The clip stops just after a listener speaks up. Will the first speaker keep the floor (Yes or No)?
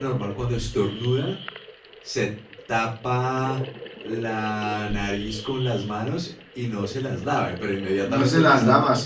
No